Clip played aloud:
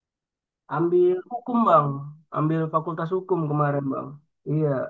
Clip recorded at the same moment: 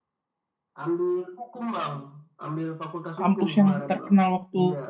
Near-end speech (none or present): present